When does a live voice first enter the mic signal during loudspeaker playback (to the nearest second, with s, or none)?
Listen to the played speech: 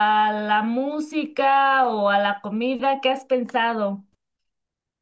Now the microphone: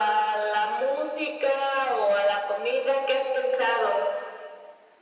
none